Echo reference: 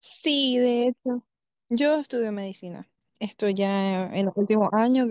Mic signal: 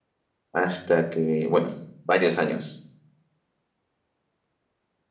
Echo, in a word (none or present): none